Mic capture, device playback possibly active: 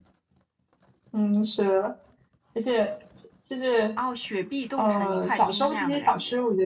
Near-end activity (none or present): none